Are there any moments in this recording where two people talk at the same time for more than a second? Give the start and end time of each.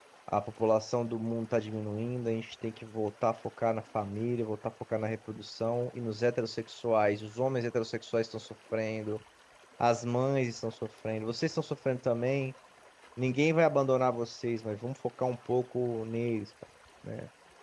none

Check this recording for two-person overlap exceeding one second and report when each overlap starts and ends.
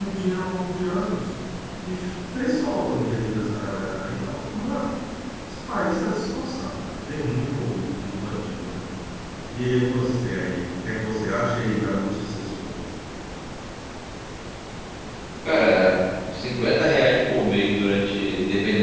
none

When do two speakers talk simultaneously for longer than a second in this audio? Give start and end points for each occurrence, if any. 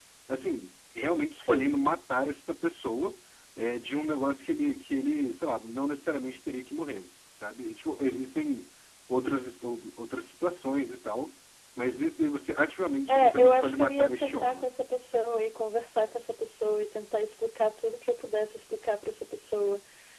13.1-14.6

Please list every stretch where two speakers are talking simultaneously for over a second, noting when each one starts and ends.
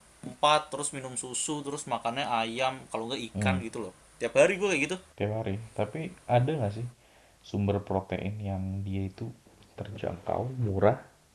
none

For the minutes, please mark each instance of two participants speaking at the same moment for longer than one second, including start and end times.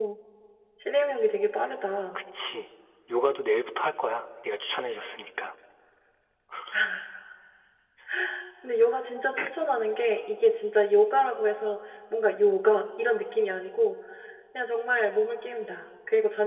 none

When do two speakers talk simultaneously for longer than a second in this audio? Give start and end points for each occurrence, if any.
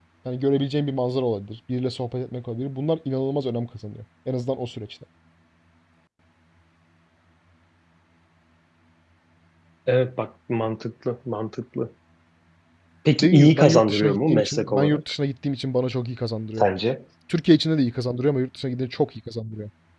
13.2-15.0

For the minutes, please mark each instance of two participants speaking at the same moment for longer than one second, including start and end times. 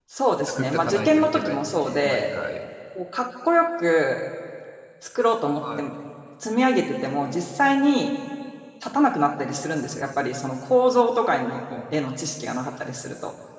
0.6-2.2

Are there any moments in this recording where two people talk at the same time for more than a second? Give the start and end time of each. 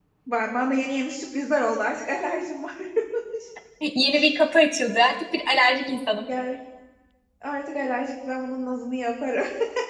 none

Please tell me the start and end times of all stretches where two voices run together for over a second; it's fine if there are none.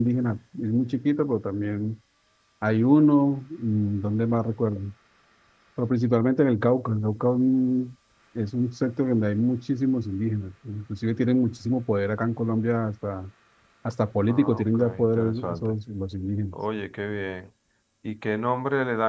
14.3-15.7

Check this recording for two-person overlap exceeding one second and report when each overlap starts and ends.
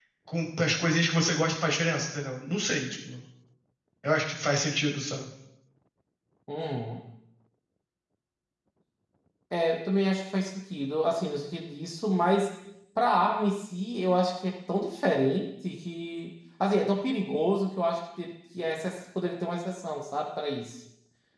none

